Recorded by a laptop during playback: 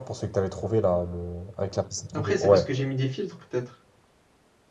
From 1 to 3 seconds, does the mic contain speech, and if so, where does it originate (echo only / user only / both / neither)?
both